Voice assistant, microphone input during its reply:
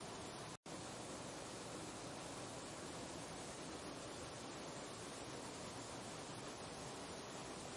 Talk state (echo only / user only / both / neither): neither